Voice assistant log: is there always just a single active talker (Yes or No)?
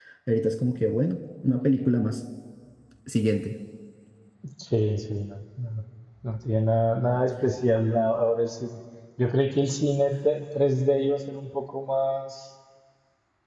Yes